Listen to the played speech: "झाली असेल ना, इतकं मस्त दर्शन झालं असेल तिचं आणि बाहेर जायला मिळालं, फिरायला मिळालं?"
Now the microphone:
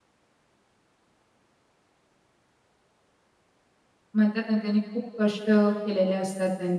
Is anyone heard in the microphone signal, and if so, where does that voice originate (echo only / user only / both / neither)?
user only